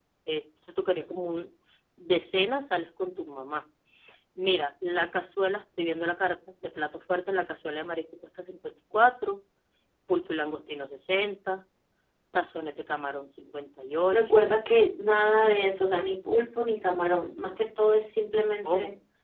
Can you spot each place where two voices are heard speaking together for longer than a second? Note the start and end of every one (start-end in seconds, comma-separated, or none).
none